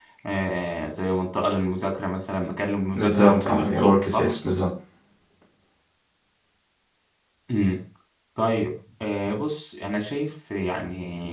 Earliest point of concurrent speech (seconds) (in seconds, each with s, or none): 2.9 s